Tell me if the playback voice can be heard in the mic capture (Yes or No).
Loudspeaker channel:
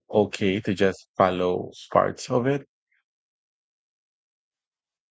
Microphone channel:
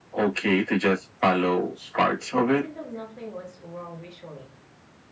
Yes